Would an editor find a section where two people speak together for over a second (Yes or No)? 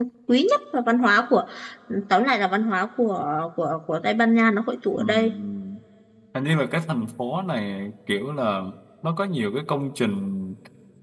No